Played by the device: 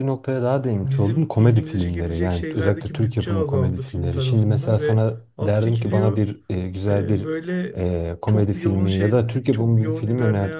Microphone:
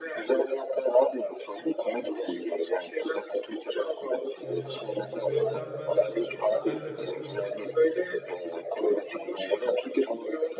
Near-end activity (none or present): present